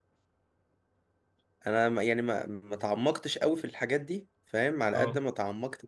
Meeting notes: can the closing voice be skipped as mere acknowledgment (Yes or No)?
Yes